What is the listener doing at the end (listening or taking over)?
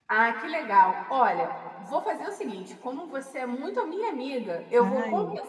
listening